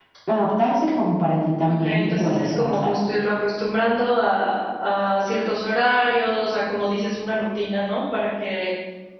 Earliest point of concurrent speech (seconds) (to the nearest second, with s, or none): 2 s